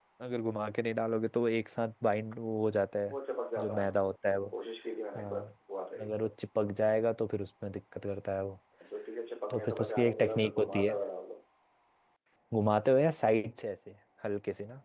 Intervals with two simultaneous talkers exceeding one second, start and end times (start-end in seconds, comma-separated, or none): 9.5-10.9